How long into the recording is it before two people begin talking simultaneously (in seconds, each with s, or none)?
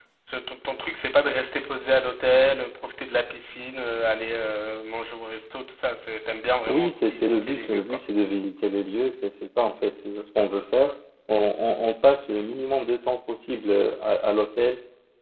6.7 s